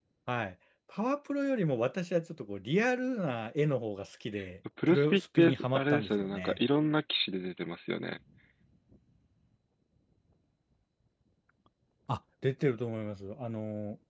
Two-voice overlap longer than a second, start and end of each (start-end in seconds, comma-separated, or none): 4.9-6.6